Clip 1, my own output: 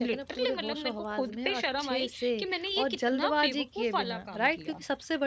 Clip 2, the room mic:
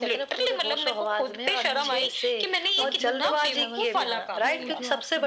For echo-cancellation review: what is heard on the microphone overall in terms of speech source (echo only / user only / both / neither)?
both